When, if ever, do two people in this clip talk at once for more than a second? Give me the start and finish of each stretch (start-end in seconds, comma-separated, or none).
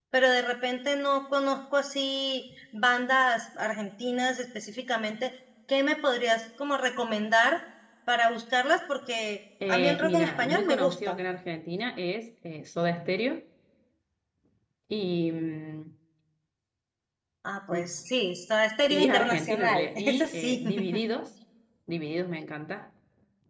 9.7-11.2, 18.9-20.6